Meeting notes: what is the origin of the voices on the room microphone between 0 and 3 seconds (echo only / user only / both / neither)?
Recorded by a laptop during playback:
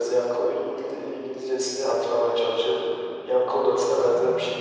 echo only